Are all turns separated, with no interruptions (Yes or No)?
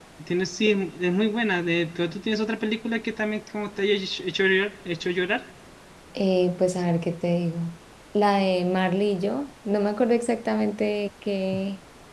Yes